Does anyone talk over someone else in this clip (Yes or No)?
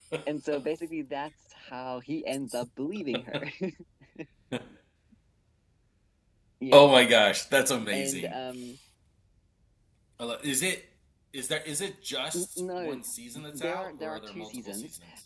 Yes